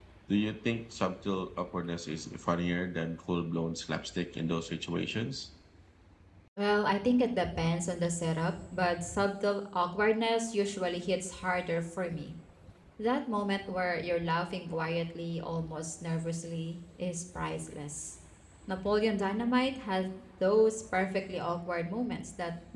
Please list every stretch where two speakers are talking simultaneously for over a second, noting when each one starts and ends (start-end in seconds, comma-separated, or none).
none